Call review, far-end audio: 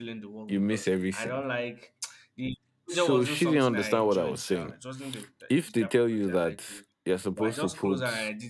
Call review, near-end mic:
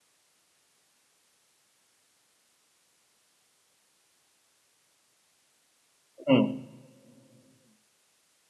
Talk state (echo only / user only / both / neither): user only